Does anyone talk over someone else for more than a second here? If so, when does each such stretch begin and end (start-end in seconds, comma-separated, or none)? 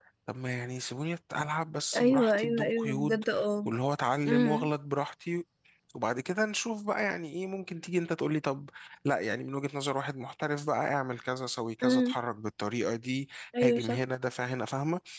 2.0-3.2